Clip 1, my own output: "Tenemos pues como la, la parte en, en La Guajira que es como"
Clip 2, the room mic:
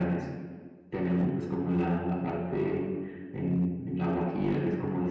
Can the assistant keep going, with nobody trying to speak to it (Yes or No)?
Yes